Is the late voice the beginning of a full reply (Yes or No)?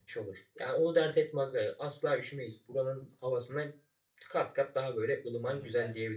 Yes